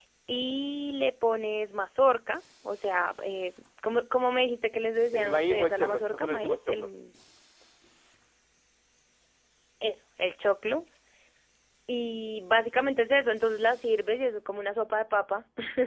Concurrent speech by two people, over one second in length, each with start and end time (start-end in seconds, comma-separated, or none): 5.1-6.9